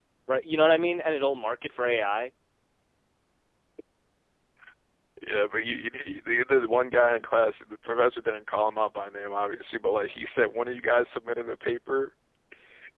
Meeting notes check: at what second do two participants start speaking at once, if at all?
none

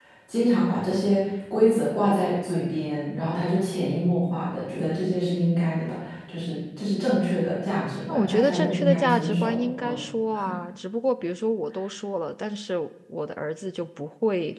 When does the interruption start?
8 s

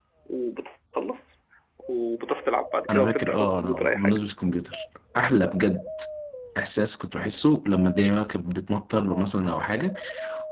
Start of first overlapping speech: 3 s

